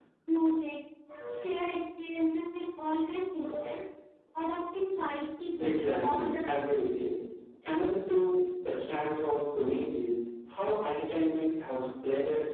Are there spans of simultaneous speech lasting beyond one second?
Yes, from 5.6 s

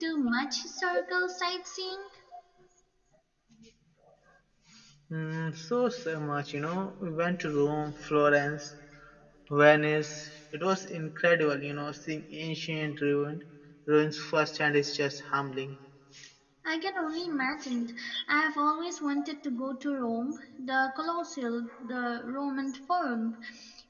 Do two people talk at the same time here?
No

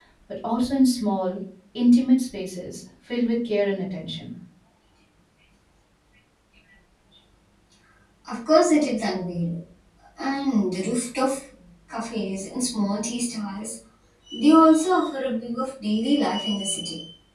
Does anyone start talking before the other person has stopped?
No

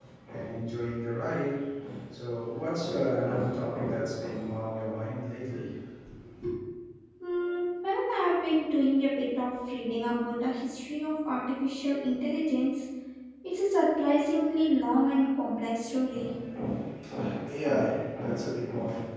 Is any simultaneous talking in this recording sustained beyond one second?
No

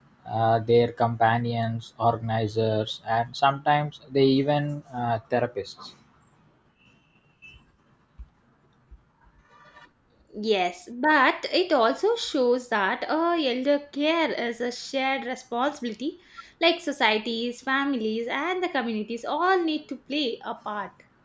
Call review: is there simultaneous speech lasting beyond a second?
No

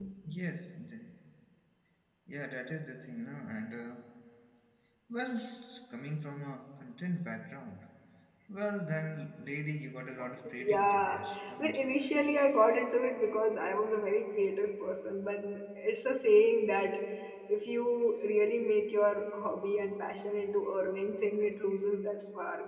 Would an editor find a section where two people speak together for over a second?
No

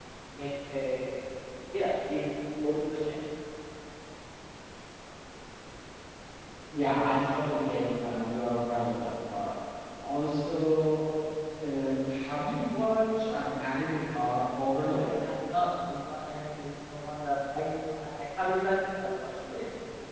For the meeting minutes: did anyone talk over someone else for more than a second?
No

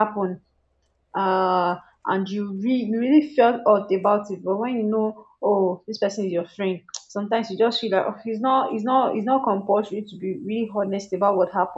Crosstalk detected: No

